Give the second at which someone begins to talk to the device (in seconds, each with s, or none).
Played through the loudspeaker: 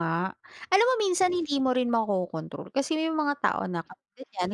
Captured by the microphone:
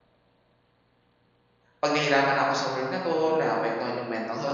1.8 s